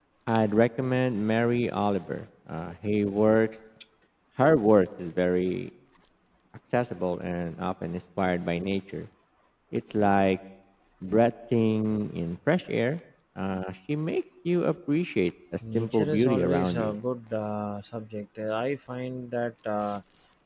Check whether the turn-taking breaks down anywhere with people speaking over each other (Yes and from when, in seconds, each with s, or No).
Yes, from 15.6 s